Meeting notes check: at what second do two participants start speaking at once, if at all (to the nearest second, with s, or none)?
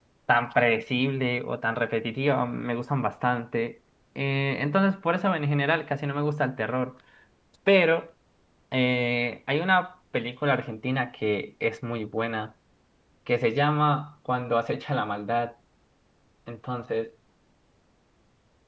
none